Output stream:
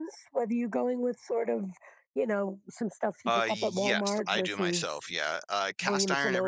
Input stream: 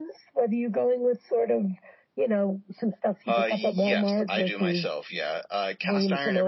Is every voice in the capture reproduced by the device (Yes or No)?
Yes